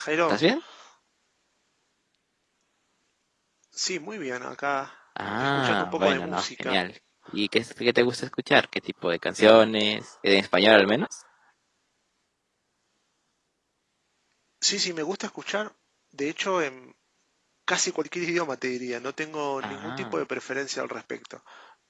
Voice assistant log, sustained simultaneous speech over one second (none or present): present